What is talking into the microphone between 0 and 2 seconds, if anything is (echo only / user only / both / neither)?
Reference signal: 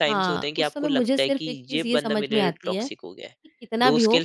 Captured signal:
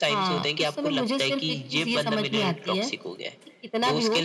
echo only